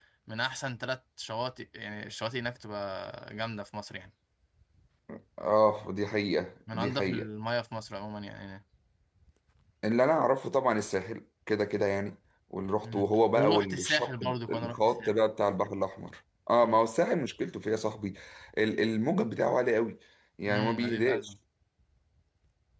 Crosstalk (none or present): present